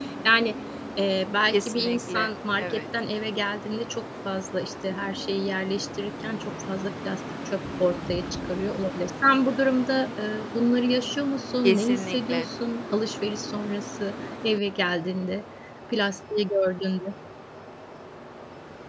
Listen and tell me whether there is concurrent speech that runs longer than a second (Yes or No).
Yes